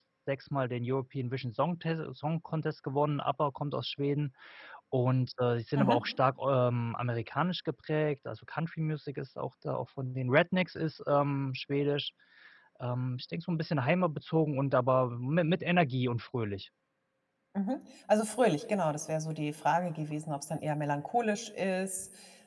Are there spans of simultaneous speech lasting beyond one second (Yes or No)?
No